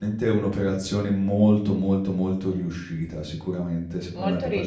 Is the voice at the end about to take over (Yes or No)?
No